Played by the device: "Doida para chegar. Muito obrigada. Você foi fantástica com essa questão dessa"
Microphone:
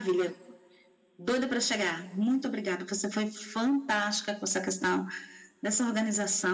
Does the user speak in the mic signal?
No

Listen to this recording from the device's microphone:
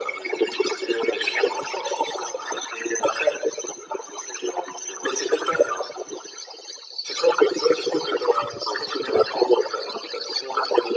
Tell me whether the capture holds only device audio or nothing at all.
Yes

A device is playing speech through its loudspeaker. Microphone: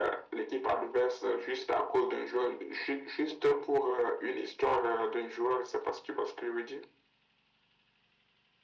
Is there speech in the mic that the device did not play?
No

